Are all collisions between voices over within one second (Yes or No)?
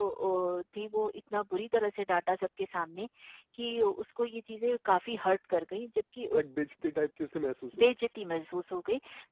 Yes